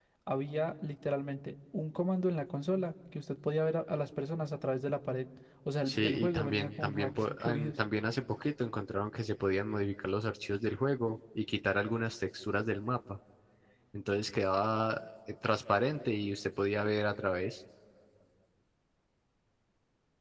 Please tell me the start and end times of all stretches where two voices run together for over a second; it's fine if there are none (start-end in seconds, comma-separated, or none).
5.8-7.7